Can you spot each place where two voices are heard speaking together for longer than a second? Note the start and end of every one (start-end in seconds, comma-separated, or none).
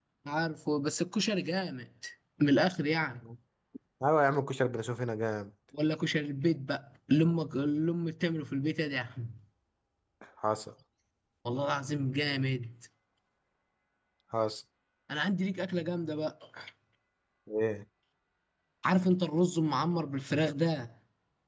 none